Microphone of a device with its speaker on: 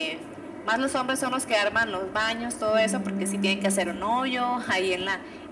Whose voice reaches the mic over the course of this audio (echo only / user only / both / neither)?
both